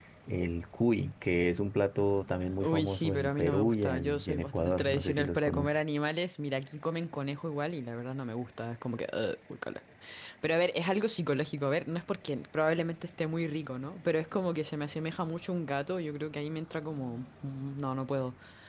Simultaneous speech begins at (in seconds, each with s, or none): 2.4 s